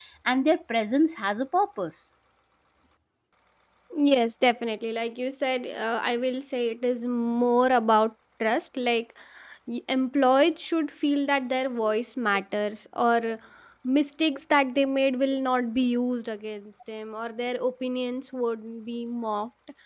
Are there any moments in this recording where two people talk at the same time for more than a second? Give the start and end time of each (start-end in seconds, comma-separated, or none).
none